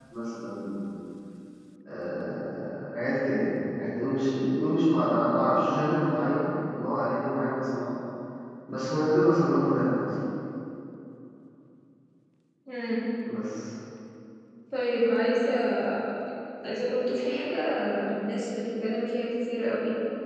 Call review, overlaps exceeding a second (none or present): none